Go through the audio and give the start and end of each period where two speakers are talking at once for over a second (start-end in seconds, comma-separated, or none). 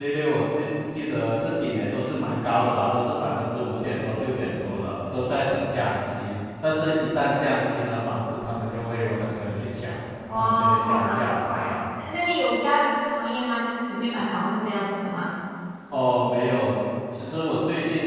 10.3-11.8